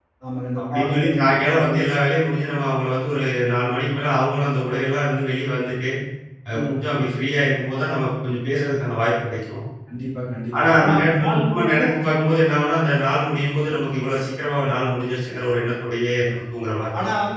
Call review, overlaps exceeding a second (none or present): present